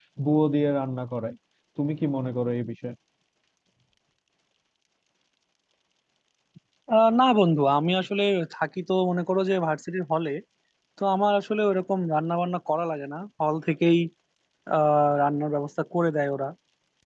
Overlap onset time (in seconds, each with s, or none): none